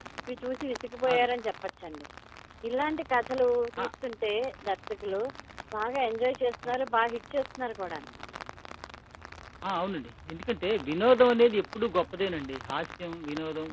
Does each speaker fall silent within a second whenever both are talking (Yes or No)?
Yes